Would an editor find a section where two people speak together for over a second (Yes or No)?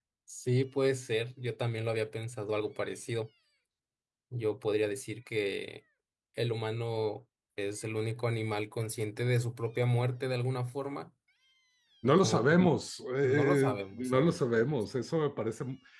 Yes